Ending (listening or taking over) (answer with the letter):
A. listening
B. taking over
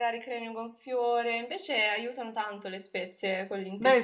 B